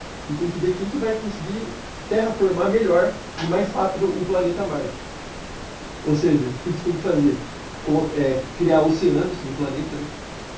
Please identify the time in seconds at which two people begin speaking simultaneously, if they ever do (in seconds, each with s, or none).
none